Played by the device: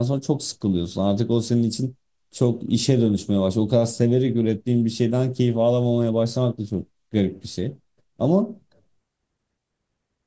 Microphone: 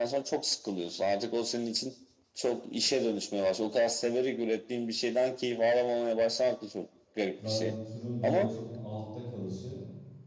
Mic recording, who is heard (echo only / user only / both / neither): both